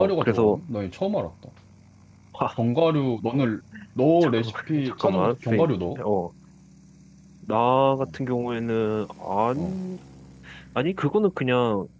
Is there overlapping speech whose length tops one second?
Yes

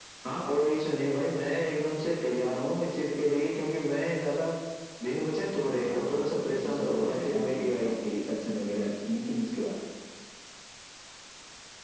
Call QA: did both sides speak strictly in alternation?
No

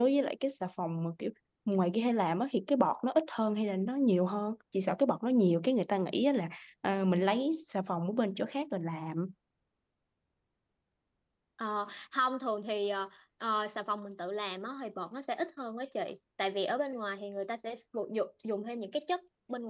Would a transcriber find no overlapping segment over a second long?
Yes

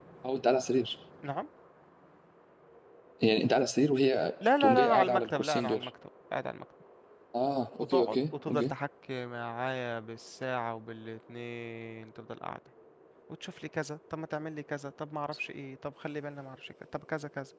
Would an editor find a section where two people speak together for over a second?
Yes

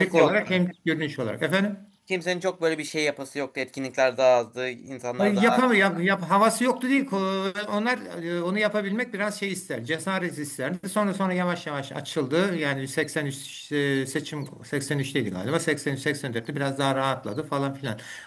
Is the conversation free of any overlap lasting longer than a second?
Yes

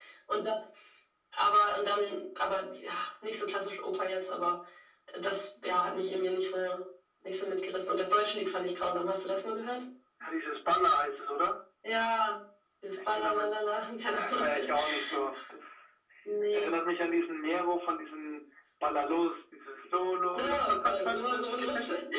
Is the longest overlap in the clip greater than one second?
Yes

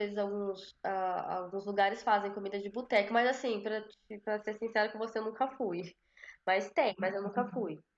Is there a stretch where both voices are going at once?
No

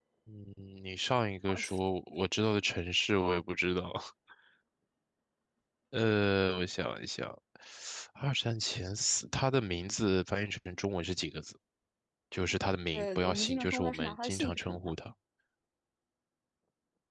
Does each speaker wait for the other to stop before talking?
No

